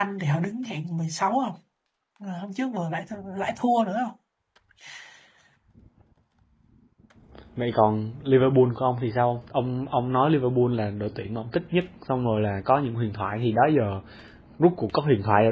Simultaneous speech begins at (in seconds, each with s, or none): none